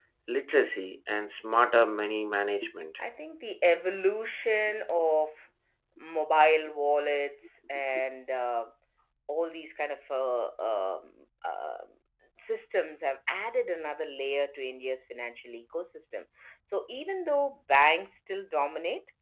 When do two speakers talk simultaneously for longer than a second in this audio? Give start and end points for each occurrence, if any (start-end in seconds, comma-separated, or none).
none